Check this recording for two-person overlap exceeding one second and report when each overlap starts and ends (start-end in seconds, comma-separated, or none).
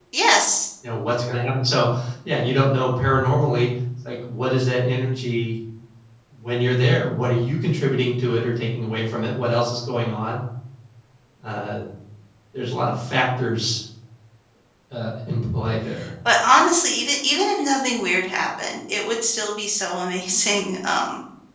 none